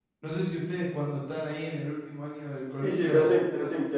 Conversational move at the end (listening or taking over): taking over